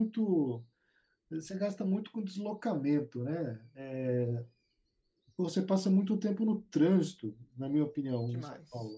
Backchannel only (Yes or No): Yes